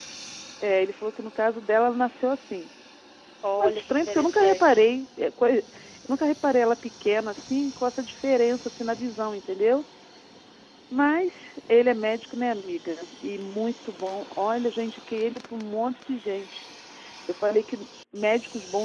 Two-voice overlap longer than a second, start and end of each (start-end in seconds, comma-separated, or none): 3.6-4.9